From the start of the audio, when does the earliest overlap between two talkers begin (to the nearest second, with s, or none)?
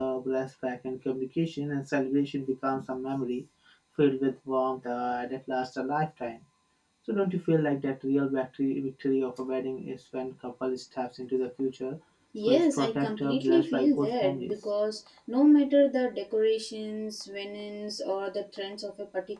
12 s